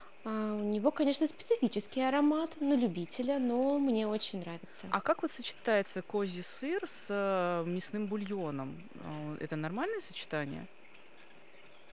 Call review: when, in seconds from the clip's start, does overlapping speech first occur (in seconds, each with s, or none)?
none